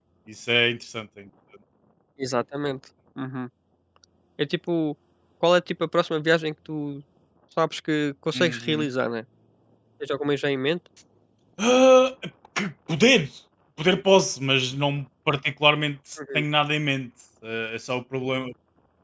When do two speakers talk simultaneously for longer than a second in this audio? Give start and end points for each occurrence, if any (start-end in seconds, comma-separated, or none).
none